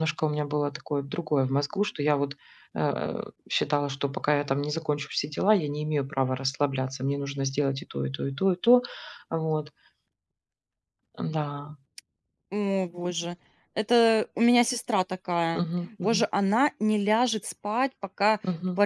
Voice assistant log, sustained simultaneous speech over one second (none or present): none